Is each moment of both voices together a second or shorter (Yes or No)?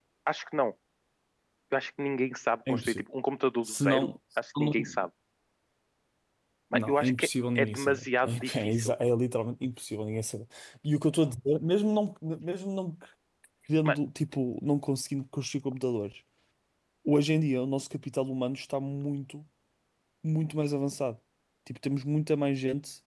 No